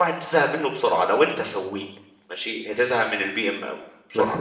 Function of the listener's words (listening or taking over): taking over